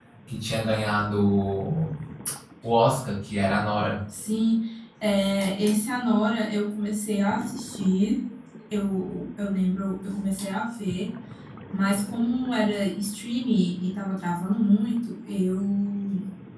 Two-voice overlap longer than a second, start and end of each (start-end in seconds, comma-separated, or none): none